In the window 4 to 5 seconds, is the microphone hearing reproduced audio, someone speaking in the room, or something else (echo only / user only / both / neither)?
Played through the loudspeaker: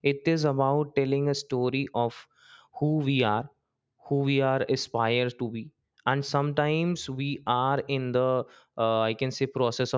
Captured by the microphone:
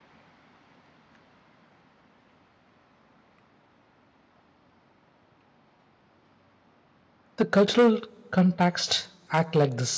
neither